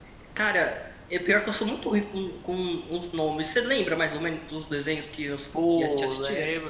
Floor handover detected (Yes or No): Yes